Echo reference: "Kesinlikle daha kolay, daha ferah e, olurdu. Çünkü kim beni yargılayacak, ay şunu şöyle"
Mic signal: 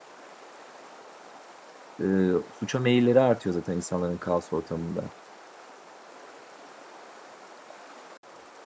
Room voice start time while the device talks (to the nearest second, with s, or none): 2 s